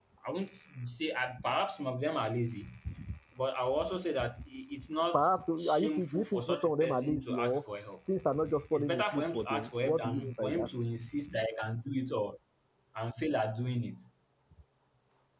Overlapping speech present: Yes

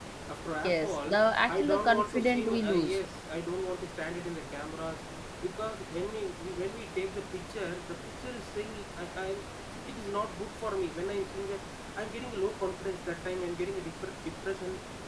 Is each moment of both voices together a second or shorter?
No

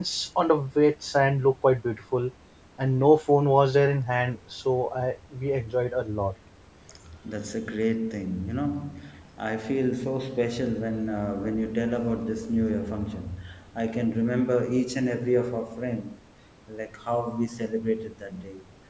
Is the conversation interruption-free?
Yes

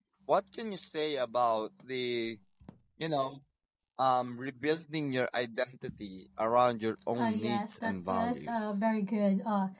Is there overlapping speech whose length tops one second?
Yes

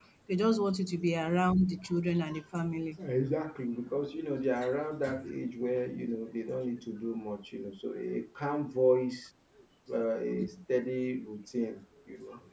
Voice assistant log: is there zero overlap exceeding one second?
Yes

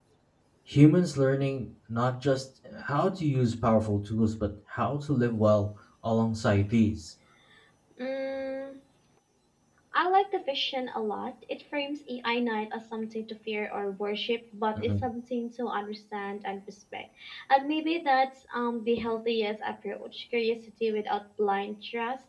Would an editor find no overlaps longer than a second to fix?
Yes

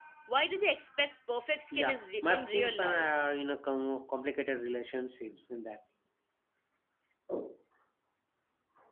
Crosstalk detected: Yes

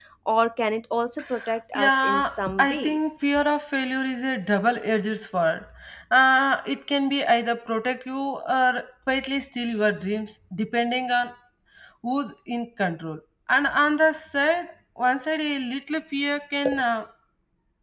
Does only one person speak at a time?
No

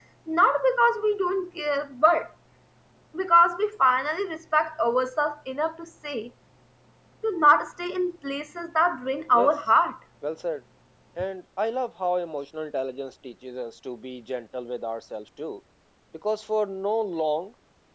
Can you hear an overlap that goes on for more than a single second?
No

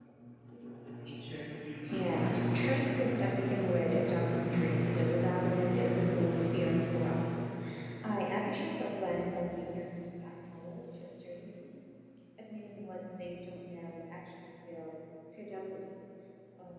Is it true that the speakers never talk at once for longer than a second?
No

